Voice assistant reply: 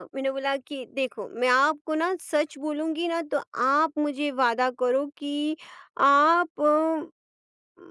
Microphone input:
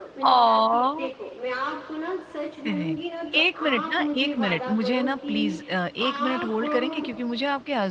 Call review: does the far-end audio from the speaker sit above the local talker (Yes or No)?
No